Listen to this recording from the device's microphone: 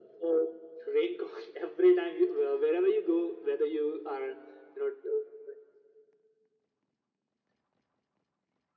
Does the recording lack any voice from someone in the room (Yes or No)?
Yes